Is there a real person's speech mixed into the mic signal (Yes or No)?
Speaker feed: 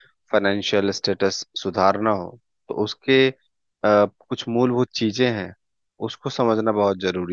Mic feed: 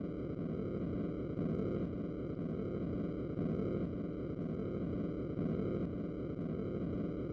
No